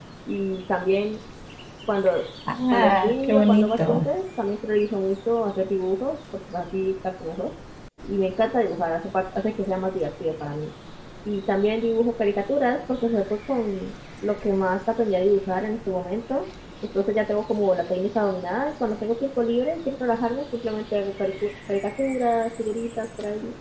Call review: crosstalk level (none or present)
present